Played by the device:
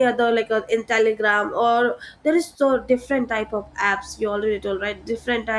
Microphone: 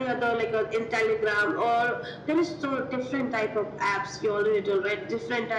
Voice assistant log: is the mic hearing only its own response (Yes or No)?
Yes